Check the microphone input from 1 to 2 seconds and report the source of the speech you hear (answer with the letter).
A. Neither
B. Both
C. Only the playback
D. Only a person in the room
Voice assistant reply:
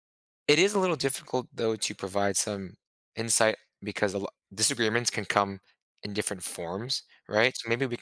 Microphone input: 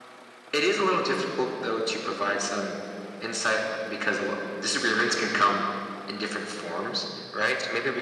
C